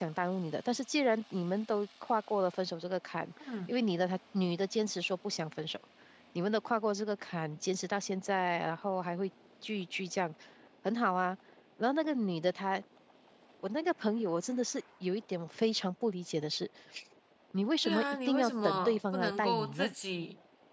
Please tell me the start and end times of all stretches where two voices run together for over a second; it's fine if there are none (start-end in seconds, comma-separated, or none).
17.8-19.9